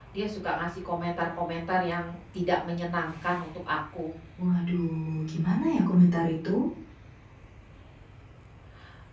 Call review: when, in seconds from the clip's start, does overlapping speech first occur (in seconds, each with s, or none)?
none